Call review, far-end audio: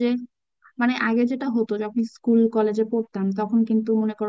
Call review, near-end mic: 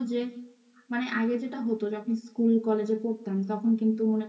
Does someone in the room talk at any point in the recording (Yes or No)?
No